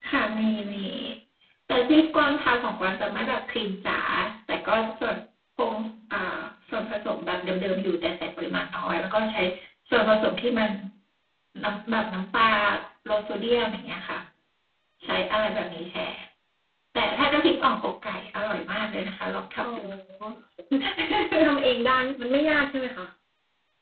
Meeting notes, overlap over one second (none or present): none